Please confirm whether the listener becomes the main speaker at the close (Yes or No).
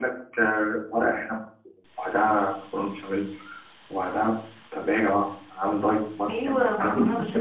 Yes